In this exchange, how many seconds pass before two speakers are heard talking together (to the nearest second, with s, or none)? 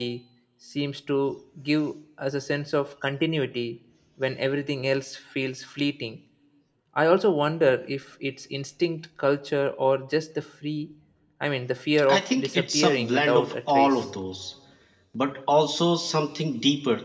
12 s